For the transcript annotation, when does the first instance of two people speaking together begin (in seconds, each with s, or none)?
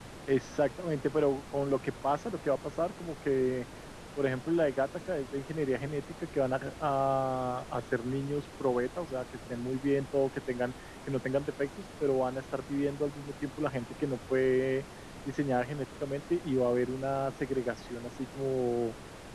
none